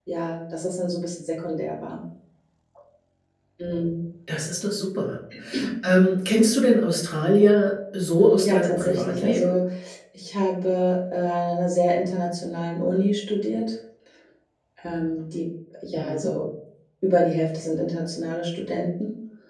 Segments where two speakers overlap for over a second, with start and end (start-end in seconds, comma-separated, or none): 8.2-9.5